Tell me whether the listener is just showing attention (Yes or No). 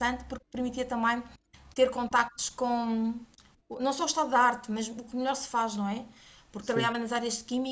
Yes